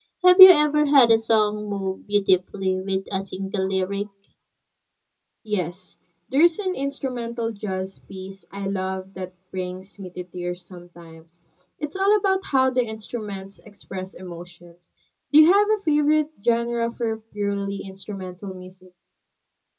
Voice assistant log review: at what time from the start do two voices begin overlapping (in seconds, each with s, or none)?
none